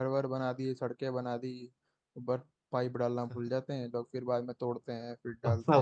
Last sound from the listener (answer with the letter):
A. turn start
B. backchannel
A